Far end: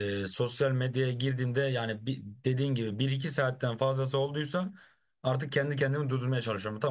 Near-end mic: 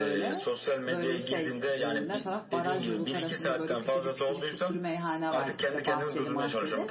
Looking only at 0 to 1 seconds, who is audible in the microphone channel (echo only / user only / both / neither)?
both